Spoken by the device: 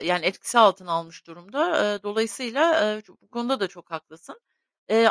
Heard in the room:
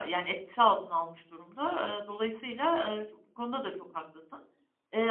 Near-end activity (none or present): none